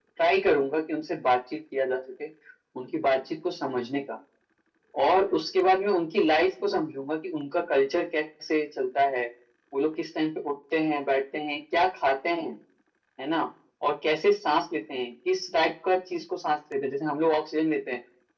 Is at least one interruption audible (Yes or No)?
No